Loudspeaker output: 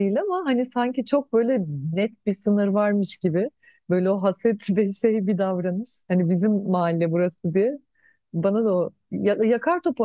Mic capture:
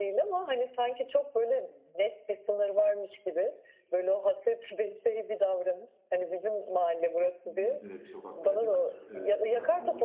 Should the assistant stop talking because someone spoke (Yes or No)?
Yes